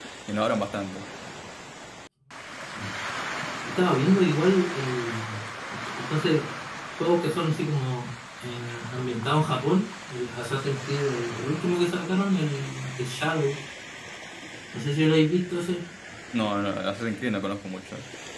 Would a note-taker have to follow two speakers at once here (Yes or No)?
No